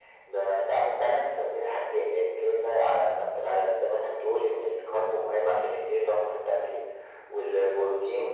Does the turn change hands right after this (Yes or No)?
No